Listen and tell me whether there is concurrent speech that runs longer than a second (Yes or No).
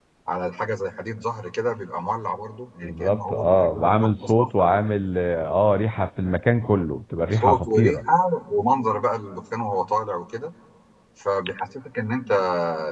Yes